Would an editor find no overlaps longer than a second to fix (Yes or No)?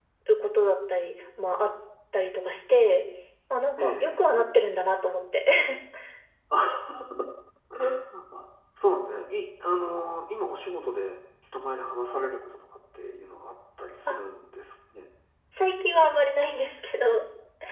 Yes